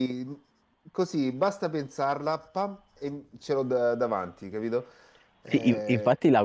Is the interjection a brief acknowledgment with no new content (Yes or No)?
No